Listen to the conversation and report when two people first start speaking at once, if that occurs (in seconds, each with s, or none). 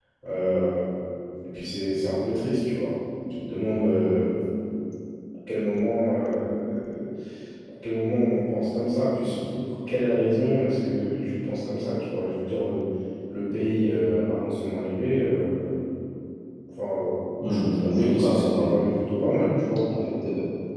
17.5 s